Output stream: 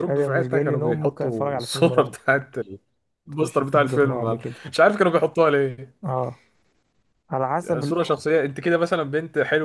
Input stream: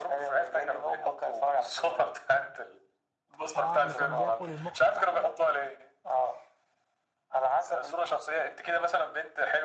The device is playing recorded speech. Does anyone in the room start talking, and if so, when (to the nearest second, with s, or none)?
4 s